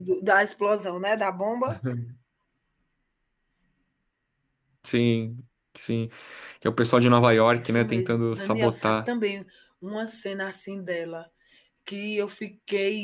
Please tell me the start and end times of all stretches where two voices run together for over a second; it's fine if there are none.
7.6-8.9

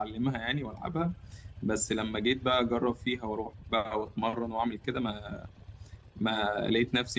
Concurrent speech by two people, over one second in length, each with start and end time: none

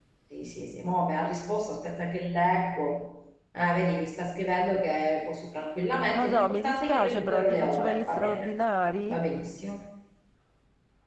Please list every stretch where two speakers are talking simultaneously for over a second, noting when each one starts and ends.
6.1-8.5

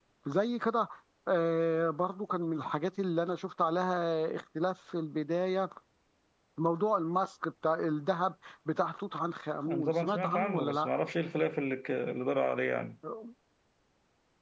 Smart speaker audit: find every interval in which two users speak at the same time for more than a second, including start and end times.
9.7-10.9

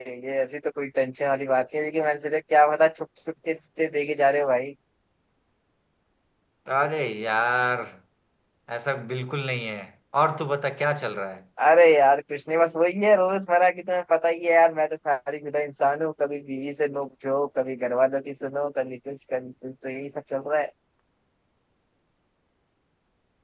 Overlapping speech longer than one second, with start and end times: none

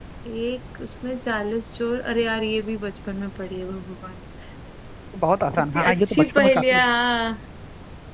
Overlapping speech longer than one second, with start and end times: 5.6-6.8

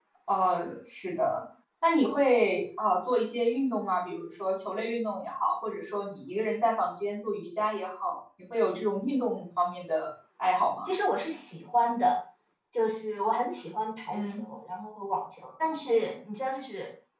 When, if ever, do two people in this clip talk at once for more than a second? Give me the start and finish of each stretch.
none

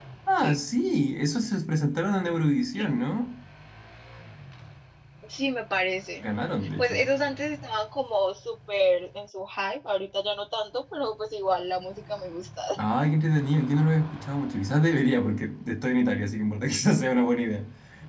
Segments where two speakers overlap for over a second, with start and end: none

